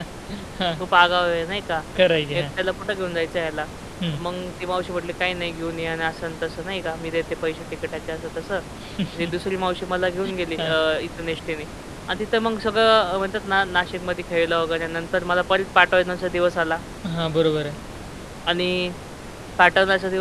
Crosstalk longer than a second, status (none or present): none